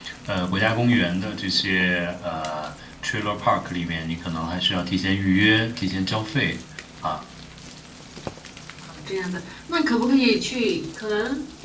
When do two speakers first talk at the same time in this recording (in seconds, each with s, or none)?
none